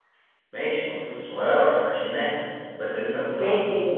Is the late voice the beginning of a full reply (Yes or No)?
Yes